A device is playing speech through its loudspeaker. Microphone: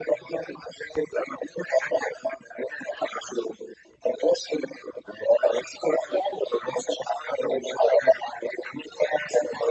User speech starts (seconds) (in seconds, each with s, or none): none